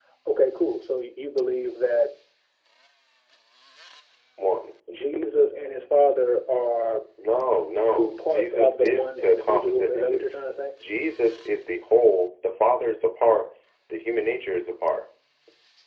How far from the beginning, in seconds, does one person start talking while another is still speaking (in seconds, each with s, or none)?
7.8 s